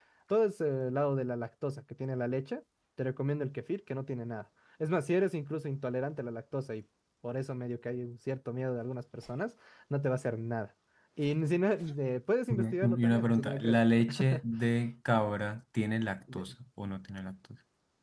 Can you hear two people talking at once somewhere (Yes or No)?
Yes